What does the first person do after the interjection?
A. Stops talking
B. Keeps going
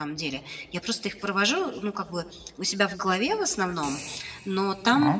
B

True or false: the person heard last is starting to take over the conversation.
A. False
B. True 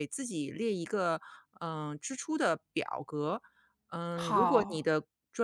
A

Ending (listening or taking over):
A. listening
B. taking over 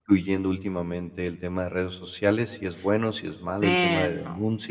A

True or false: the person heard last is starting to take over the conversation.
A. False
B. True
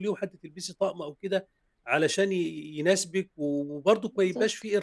A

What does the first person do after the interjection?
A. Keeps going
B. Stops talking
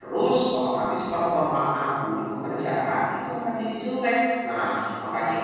A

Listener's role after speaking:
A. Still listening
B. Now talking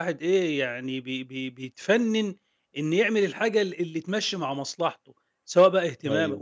A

